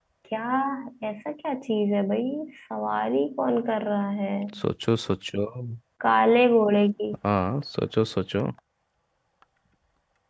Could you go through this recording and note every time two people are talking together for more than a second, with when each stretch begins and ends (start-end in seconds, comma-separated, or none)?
none